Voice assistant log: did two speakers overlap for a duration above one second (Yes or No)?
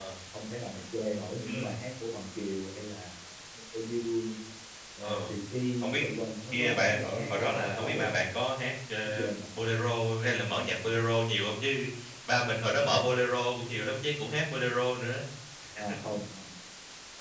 Yes